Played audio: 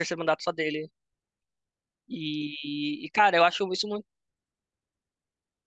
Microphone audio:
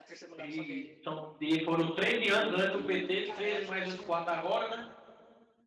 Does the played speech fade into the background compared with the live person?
Yes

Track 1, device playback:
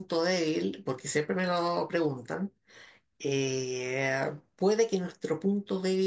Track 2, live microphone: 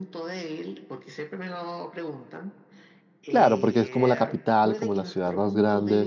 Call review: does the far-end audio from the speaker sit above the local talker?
No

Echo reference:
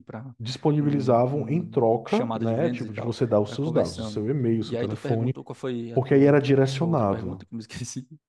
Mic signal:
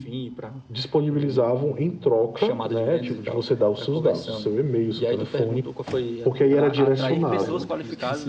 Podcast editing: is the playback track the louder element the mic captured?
Yes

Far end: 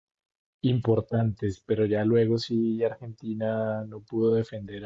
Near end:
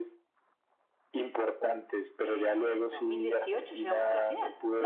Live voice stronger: No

